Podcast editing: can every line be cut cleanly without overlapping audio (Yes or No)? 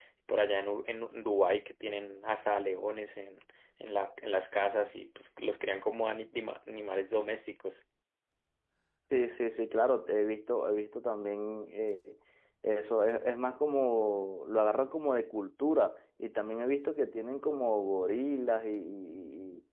Yes